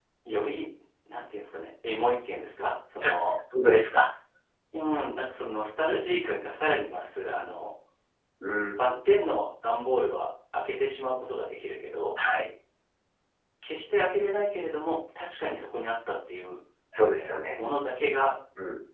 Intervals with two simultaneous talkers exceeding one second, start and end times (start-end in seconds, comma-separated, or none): none